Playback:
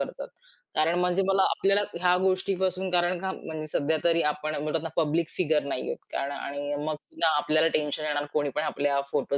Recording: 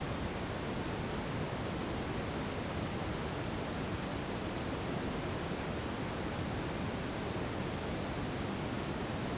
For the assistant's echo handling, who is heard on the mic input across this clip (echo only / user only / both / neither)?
neither